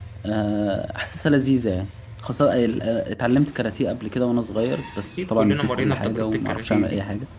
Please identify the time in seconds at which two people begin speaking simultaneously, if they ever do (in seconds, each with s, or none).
5.2 s